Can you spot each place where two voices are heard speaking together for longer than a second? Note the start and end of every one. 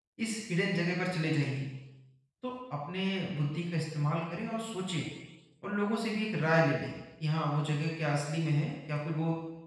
none

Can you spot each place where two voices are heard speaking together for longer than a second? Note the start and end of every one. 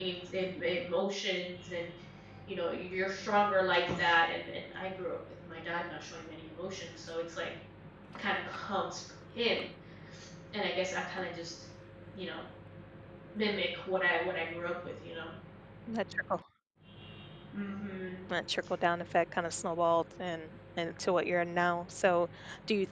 none

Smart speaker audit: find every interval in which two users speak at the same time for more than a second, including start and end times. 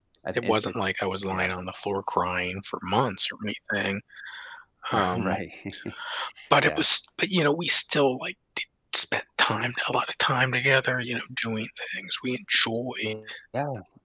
none

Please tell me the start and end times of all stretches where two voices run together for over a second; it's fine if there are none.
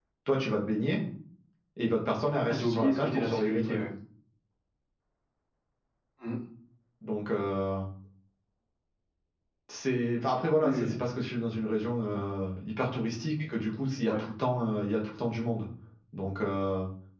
2.5-3.8

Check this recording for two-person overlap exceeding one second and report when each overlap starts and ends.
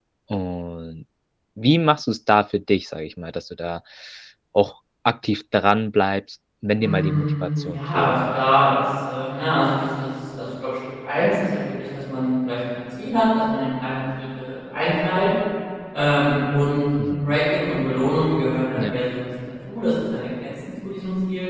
6.8-8.2

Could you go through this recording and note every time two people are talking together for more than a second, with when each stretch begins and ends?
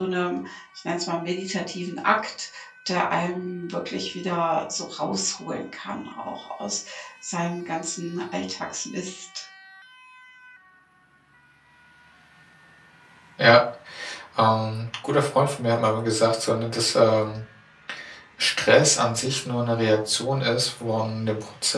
none

